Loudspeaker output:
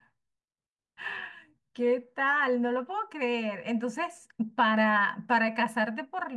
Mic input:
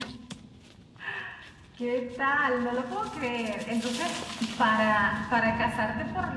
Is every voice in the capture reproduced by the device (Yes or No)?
Yes